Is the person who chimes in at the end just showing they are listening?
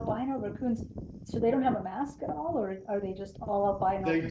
No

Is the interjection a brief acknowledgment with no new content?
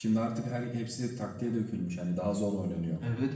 No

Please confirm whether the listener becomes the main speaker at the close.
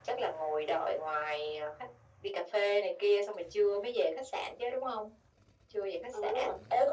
Yes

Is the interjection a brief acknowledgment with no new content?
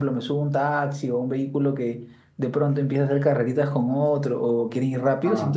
Yes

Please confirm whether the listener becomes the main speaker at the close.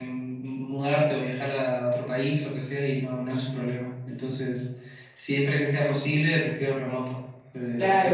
Yes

